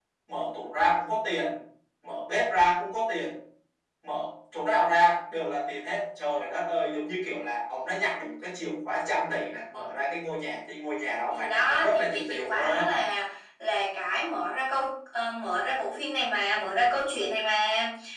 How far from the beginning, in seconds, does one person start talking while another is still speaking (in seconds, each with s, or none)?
11.3 s